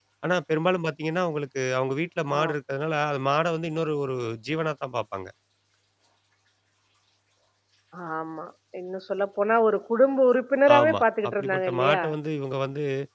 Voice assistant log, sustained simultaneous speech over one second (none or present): present